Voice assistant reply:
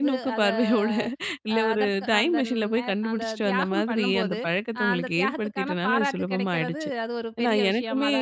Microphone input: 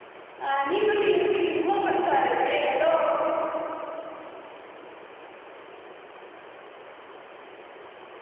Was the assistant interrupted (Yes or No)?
Yes